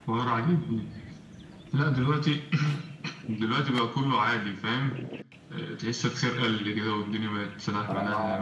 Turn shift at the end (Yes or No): Yes